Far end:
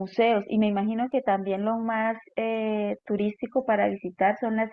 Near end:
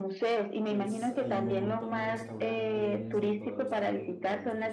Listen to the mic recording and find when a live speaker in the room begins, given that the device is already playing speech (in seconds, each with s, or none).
0.7 s